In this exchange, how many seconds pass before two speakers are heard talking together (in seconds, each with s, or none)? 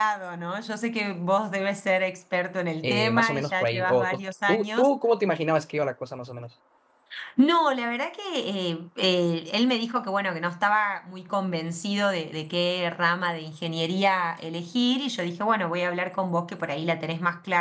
2.8 s